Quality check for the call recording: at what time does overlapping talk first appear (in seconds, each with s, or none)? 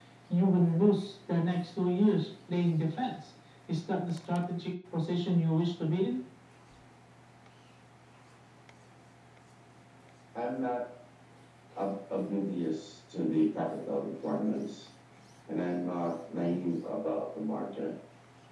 none